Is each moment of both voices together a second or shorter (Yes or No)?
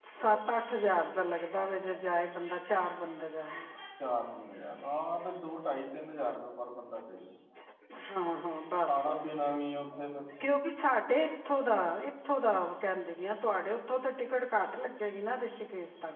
Yes